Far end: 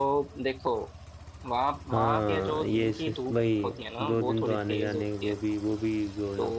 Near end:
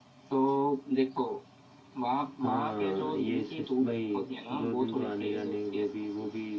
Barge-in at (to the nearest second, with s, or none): none